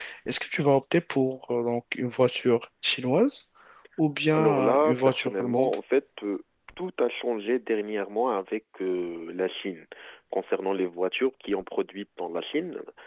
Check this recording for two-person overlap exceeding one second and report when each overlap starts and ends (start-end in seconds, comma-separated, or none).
4.3-5.8